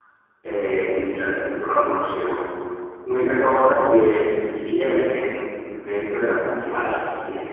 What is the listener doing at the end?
listening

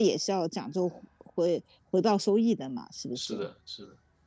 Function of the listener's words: taking over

